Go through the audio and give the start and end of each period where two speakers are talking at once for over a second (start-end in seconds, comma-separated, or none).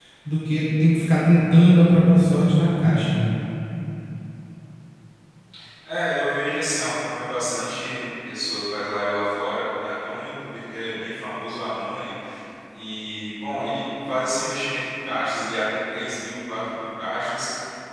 none